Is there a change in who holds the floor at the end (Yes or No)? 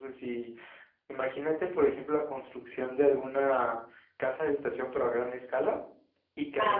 No